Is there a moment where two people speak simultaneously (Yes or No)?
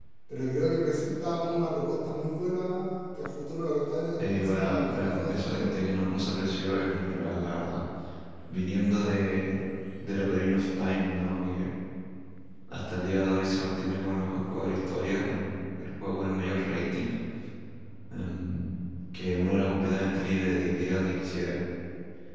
Yes